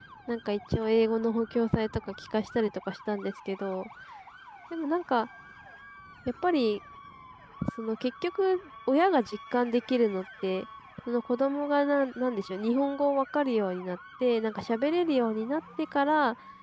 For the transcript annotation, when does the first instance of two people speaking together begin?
none

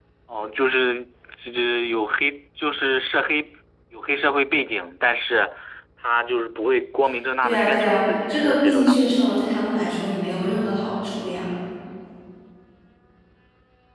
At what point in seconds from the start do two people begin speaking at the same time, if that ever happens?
7 s

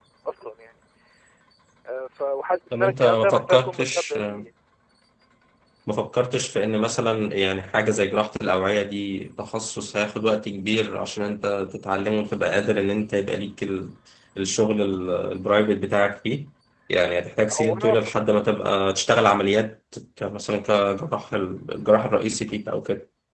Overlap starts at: 3 s

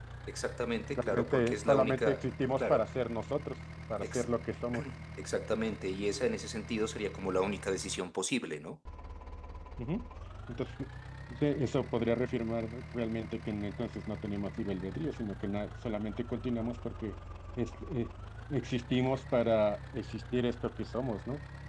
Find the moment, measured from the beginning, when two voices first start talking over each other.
1 s

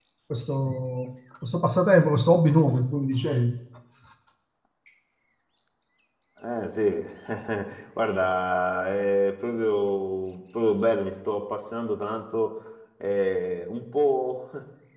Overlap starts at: none

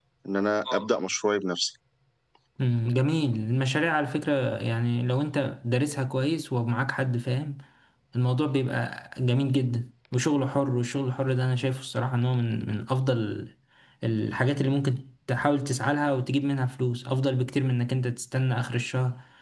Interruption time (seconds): none

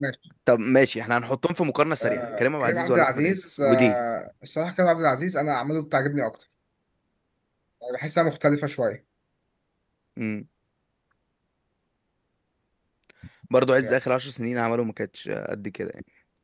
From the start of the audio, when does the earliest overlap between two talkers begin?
2 s

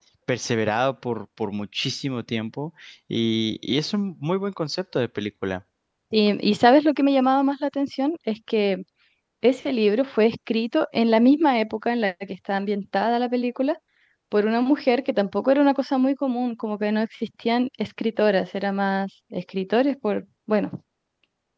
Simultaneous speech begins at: none

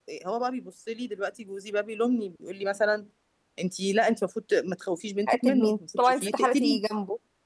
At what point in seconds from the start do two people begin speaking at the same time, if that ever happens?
5 s

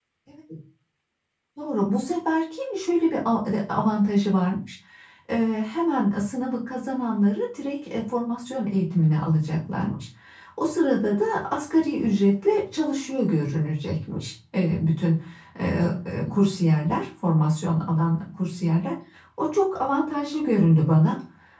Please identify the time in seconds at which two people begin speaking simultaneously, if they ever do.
none

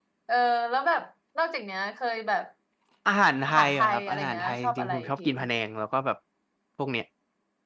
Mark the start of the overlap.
3 s

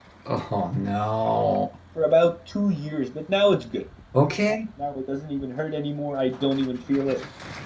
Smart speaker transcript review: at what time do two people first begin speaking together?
none

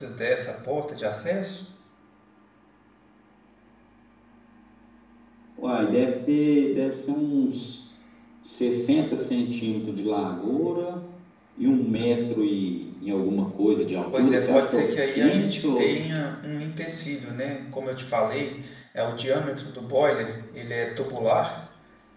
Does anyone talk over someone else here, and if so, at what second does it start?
14 s

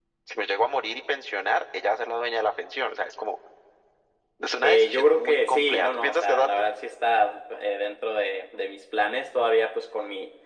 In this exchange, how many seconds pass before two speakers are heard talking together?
5 s

